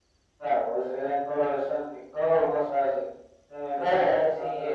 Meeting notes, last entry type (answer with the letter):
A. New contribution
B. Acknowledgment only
A